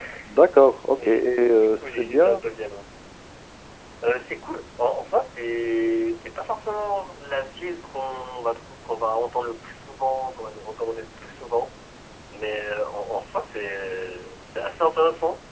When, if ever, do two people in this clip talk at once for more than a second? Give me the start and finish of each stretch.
1.0-2.4

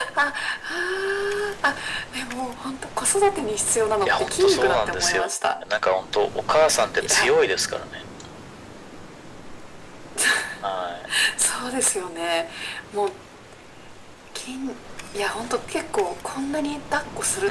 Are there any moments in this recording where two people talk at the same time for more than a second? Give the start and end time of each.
4.0-5.6

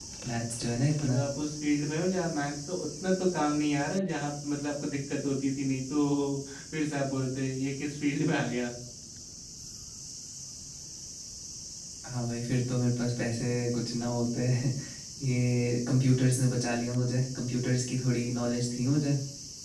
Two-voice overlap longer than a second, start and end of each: none

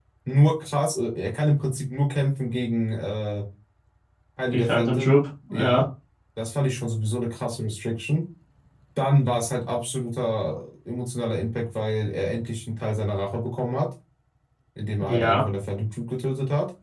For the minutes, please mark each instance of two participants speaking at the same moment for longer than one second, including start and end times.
4.5-5.8

